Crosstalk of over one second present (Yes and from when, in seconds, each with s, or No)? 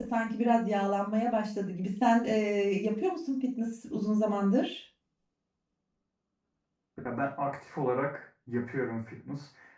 No